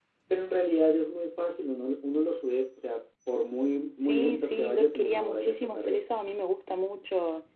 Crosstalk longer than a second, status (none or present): present